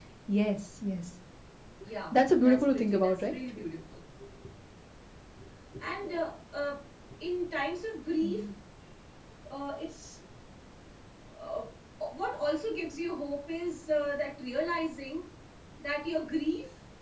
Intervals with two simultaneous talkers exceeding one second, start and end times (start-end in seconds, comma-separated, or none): 2.1-3.3